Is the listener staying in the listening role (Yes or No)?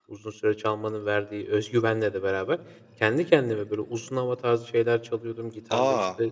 Yes